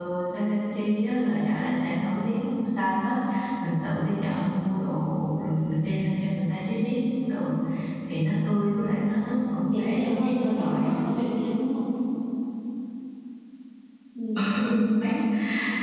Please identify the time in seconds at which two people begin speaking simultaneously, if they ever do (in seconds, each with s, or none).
9.6 s